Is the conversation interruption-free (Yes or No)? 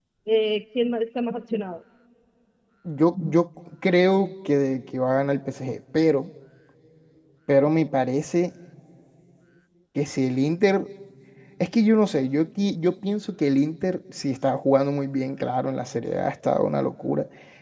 Yes